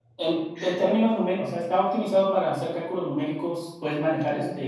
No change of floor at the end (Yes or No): Yes